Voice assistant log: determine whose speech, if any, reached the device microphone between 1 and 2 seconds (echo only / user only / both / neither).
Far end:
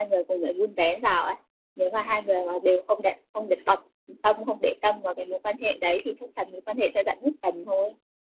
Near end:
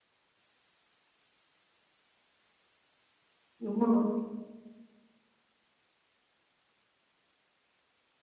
neither